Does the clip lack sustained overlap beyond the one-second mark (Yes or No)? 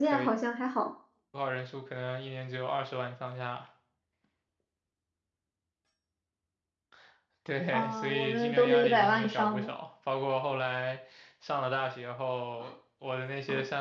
No